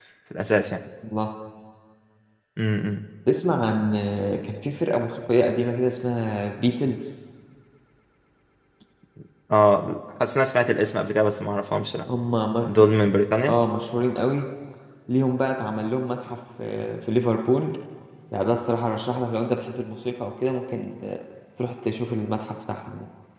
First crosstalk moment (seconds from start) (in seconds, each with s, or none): none